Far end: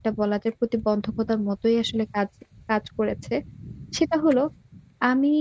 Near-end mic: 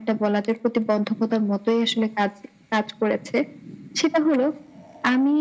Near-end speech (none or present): none